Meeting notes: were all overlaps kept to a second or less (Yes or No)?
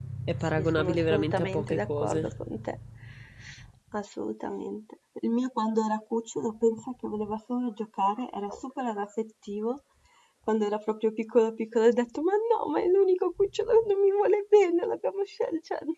No